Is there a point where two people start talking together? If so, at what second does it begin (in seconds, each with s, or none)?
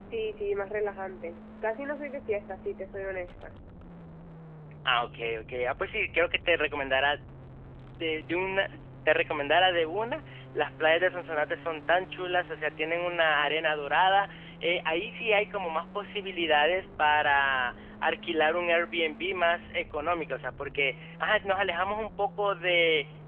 none